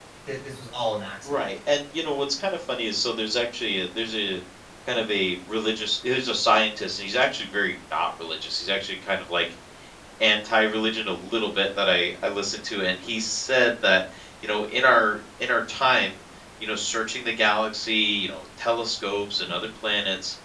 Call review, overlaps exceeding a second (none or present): none